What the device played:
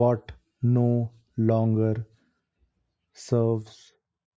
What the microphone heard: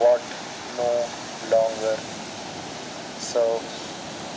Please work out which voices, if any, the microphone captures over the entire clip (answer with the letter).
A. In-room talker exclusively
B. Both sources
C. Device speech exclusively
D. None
C